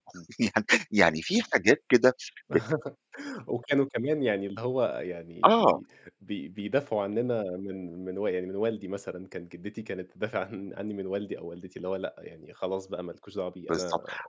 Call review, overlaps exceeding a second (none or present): none